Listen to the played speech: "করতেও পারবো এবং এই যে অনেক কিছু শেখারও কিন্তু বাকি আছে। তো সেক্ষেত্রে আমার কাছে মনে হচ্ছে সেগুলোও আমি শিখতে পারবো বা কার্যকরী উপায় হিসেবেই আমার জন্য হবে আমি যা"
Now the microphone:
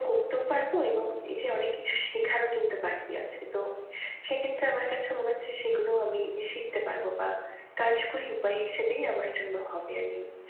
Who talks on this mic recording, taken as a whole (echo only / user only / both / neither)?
echo only